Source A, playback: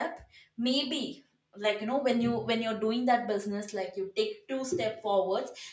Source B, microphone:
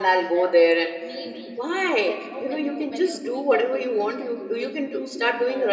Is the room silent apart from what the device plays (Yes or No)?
No